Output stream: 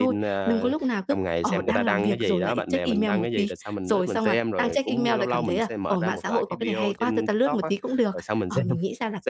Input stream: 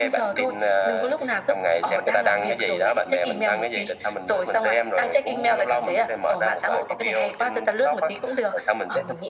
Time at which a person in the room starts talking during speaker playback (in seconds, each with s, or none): none